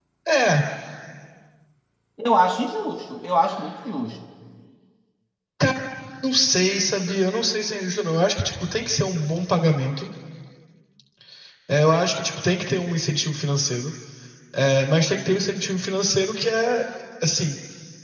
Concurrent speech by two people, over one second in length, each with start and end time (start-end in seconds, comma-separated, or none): none